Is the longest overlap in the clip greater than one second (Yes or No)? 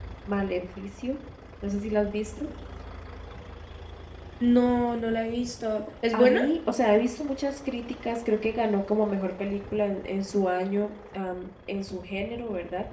No